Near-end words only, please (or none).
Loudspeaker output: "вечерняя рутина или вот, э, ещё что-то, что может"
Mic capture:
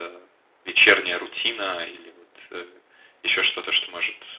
none